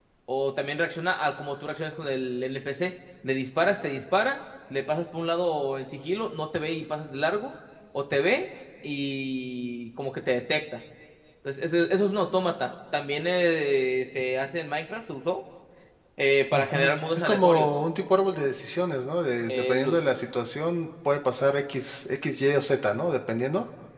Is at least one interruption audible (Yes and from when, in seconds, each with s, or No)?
Yes, from 16.5 s